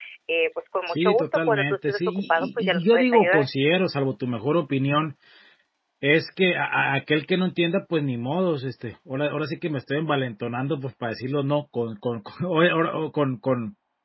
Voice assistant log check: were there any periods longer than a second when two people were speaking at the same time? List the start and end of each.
0.9-3.5

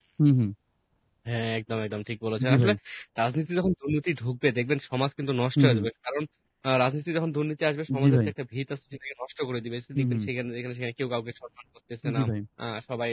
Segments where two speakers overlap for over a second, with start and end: none

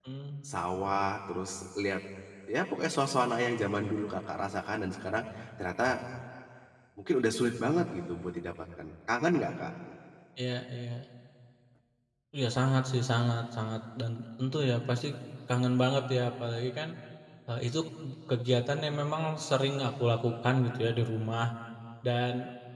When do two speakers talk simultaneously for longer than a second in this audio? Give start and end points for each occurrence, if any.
none

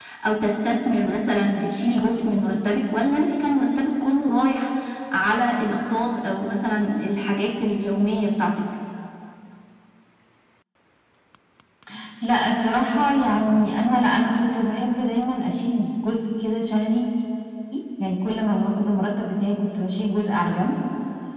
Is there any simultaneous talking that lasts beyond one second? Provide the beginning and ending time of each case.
none

